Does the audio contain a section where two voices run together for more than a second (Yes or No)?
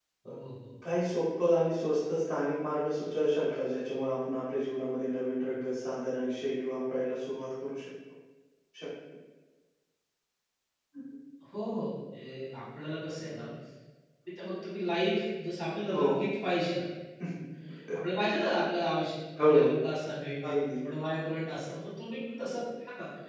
No